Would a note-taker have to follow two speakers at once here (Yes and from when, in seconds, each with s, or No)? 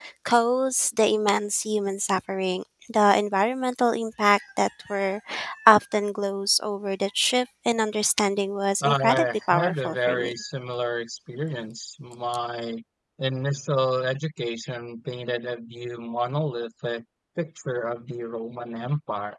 Yes, from 8.8 s